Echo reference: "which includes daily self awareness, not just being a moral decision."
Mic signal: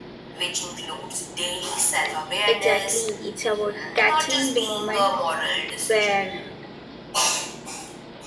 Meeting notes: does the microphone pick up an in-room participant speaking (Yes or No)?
Yes